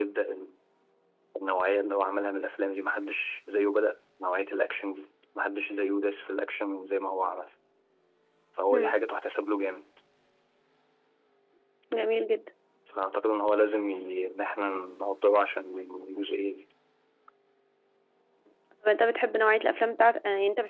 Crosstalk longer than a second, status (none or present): none